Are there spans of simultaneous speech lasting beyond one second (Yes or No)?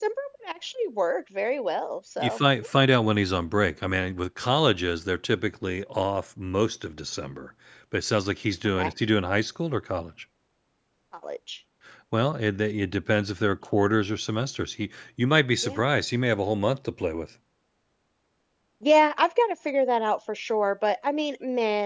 No